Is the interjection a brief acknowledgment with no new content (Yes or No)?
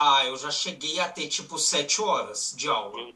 Yes